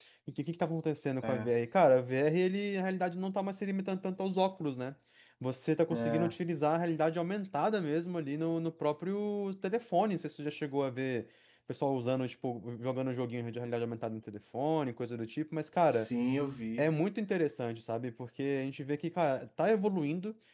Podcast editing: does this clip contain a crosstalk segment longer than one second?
No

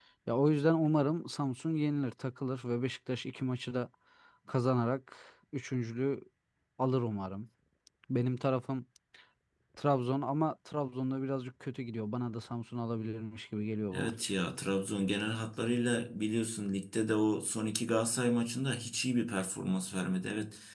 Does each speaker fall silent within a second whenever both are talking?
Yes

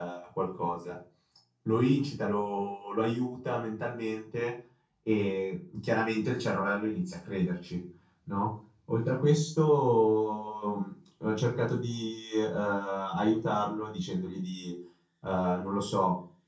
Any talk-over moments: No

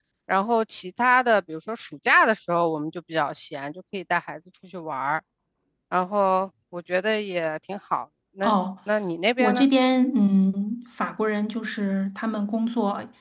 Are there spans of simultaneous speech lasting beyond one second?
No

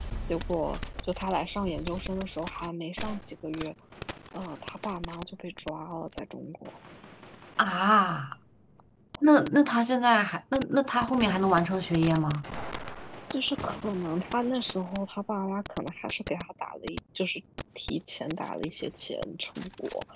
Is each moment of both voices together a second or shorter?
Yes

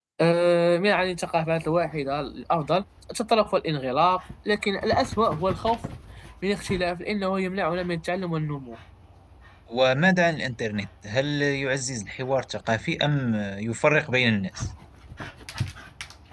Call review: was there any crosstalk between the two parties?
No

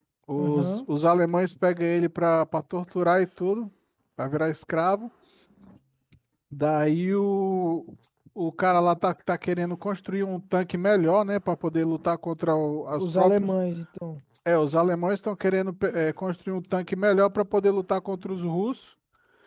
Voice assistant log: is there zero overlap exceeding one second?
Yes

